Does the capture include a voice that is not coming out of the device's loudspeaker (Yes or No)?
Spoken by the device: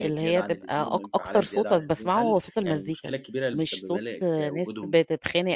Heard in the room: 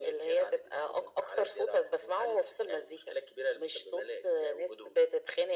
No